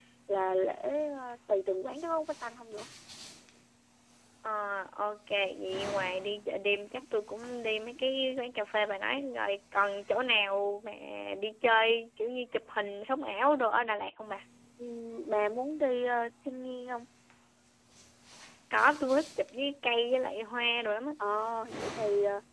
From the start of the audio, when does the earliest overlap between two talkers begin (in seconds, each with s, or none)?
none